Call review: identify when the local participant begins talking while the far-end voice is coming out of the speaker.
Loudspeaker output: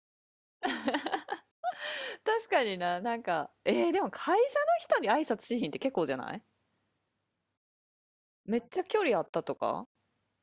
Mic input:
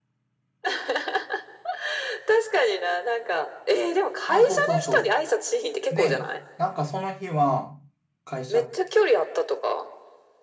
4.3 s

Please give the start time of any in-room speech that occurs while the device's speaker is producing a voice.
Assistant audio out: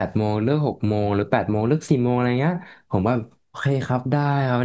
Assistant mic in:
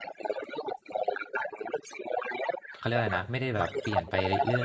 2.7 s

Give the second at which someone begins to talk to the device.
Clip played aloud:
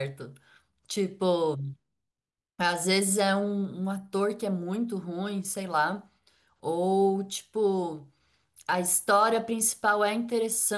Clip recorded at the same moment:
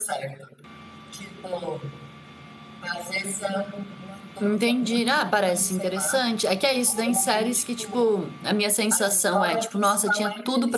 4.4 s

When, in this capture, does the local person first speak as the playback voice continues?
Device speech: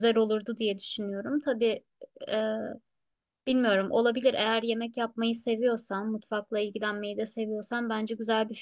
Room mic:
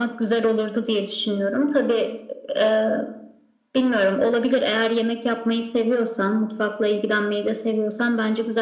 none

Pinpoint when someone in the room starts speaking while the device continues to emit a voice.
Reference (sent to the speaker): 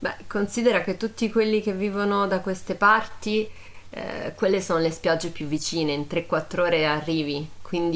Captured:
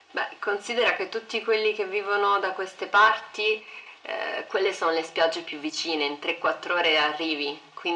none

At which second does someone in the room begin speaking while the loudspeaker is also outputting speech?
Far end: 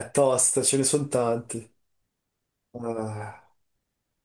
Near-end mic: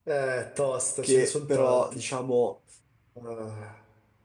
1.0 s

